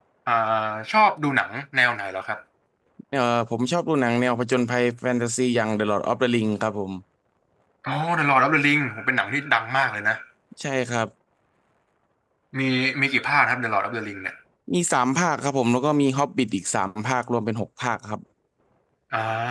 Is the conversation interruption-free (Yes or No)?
Yes